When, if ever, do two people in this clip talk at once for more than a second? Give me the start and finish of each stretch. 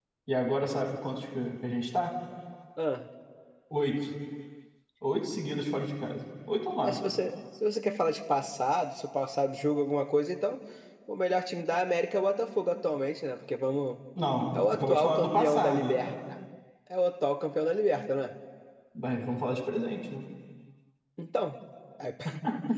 14.5-16.1

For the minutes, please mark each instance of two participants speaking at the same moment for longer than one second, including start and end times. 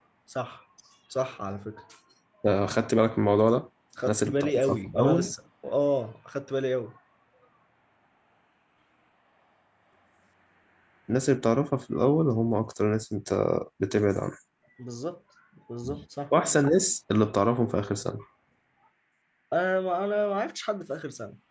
4.0-5.3

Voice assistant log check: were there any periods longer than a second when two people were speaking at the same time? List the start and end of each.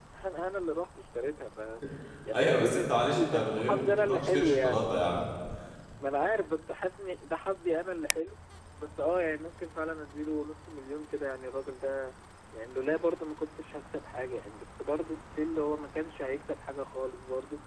2.3-4.9

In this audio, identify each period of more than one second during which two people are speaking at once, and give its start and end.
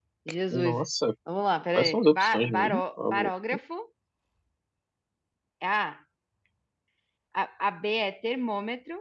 1.8-3.3

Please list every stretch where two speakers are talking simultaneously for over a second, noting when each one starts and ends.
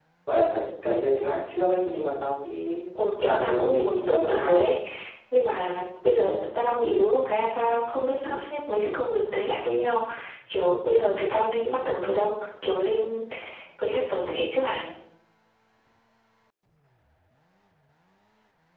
3.2-4.7

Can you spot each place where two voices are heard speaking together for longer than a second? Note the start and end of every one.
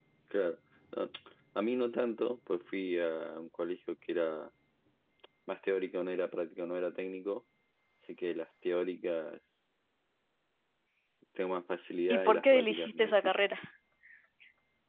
12.1-13.4

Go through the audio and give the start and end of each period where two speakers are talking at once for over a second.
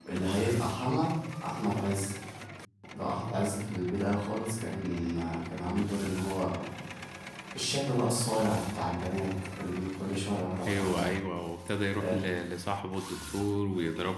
none

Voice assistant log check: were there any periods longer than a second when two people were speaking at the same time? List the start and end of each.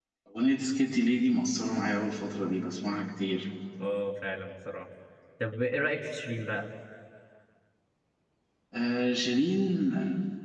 none

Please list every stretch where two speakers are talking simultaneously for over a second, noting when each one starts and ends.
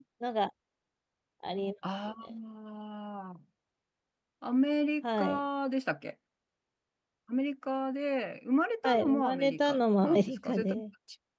8.8-10.8

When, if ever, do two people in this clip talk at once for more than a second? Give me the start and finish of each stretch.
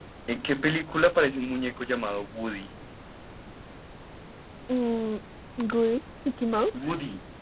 none

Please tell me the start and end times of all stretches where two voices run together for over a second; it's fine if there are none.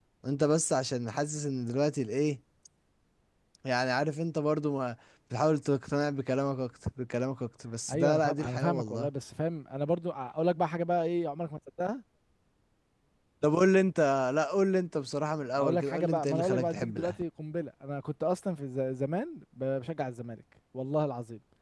7.9-9.1, 15.6-17.2

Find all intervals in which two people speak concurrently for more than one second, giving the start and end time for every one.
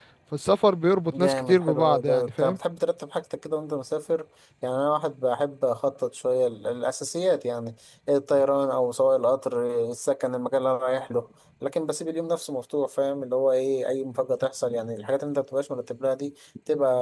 1.1-2.6

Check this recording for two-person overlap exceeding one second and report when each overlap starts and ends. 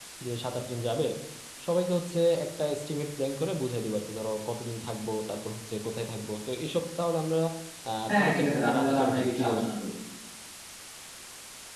8.1-9.6

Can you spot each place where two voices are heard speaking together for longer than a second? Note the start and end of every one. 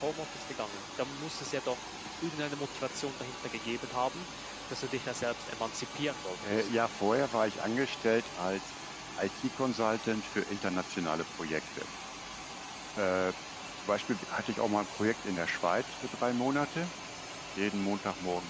none

